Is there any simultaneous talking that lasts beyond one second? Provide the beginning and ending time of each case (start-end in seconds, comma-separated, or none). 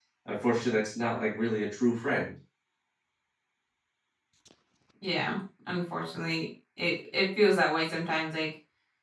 none